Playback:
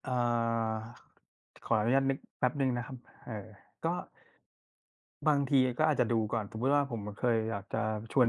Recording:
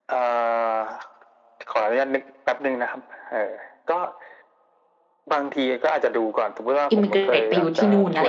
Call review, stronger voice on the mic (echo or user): user